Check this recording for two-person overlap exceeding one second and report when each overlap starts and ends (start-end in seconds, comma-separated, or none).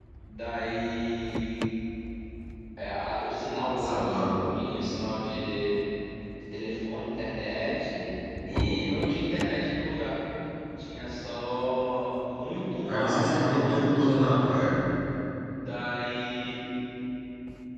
12.9-14.6